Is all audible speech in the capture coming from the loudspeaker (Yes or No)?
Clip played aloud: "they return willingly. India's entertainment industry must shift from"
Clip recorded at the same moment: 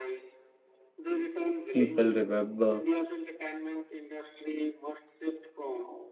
No